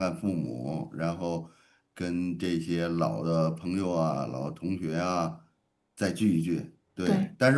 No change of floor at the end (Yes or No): Yes